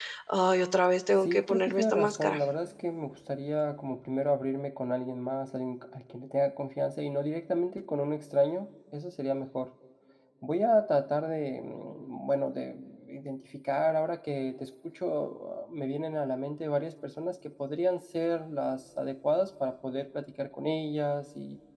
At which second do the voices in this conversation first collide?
1.2 s

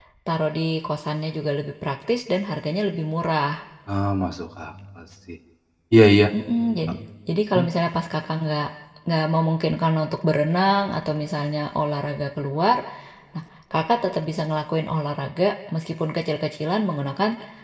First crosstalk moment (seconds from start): none

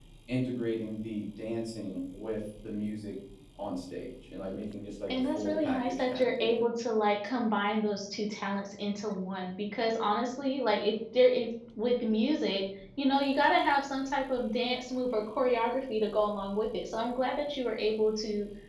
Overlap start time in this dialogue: 5.1 s

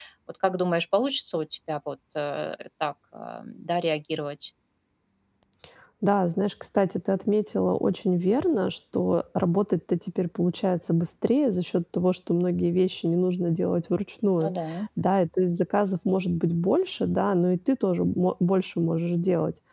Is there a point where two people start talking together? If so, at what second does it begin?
none

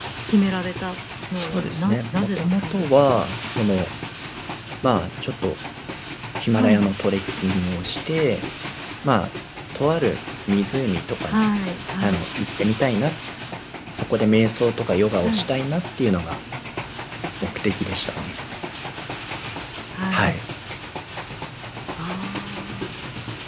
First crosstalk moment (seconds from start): 1.3 s

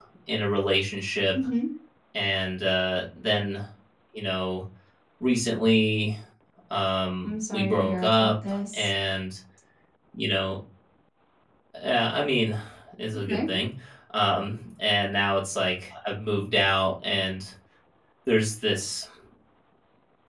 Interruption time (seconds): 7.2 s

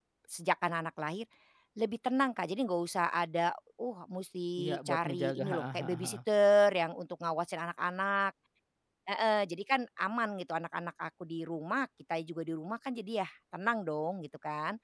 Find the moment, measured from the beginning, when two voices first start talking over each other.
4.6 s

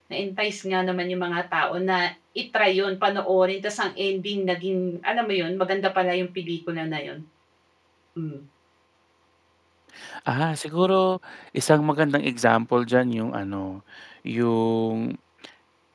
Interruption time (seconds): none

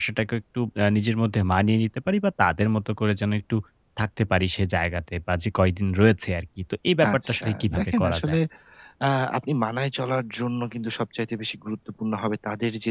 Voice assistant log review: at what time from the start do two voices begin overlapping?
7.0 s

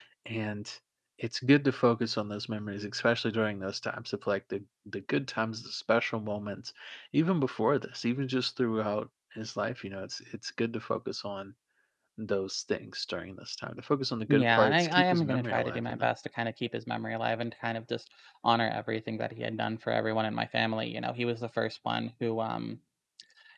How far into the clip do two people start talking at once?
14.3 s

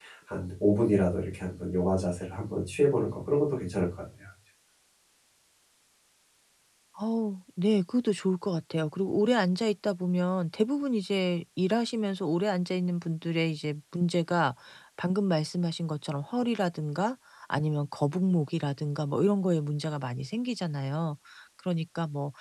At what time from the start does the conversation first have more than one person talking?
none

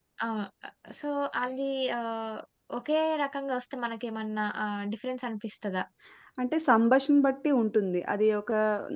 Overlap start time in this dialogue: none

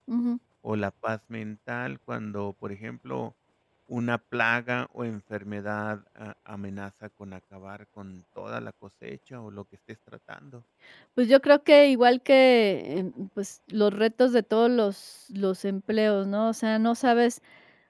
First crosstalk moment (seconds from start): none

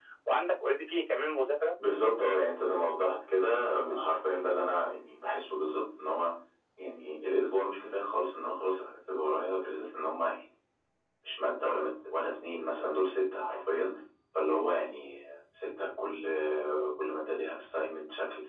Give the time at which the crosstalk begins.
none

